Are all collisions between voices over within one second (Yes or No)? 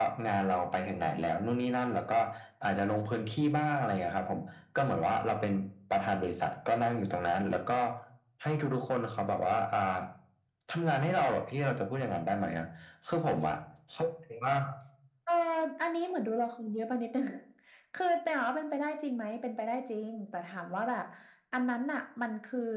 Yes